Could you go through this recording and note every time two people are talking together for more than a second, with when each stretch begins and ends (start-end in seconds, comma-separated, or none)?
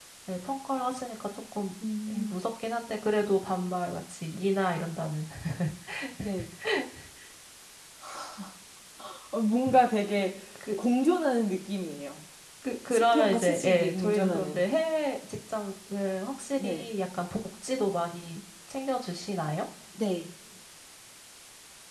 12.9-14.6